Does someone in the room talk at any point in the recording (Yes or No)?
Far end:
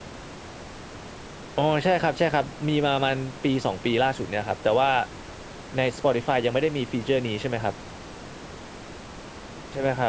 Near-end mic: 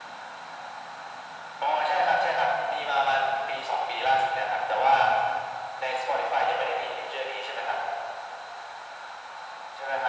No